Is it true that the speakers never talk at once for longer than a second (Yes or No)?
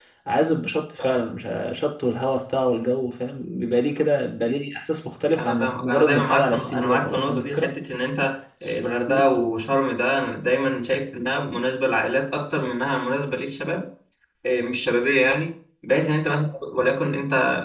No